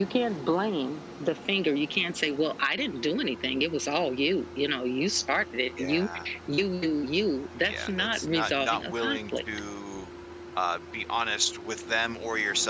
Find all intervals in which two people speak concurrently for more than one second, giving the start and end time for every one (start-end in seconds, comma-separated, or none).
7.6-9.4